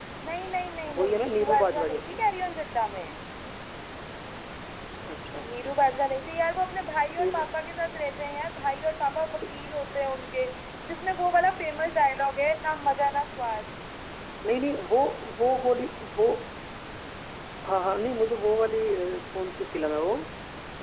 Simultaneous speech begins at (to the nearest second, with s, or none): 1 s